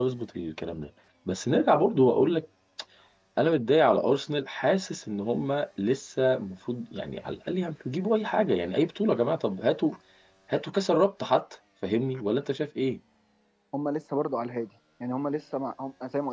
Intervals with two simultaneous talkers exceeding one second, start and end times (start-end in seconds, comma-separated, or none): none